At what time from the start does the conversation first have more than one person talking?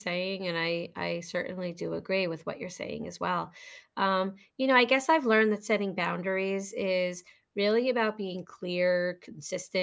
none

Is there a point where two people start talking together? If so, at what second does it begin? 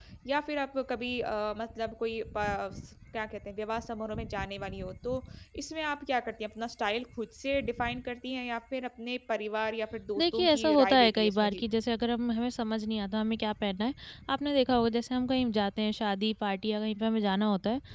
10.2 s

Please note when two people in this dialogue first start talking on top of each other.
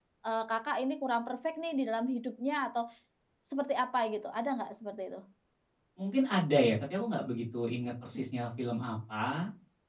none

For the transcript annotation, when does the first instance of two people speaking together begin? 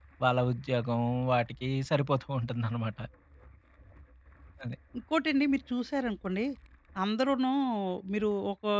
none

